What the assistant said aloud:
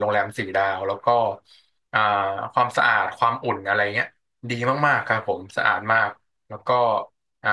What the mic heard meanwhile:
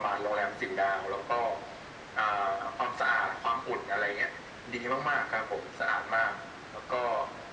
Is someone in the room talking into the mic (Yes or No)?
No